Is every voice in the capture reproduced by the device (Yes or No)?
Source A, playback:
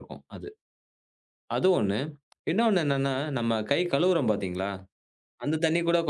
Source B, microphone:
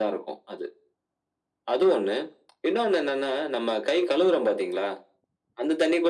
Yes